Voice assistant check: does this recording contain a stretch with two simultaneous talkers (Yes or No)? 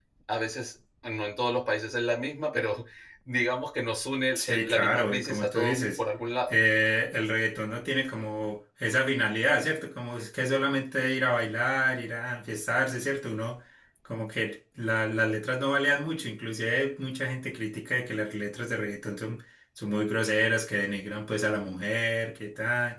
Yes